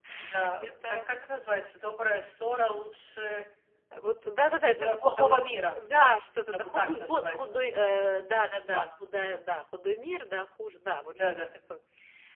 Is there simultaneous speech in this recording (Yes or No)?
Yes